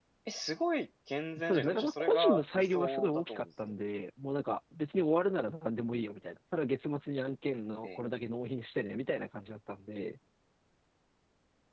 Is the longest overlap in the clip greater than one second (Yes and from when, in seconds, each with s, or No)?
Yes, from 1.4 s